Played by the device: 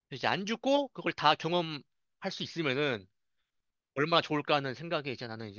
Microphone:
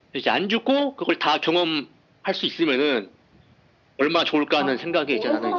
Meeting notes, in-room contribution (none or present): present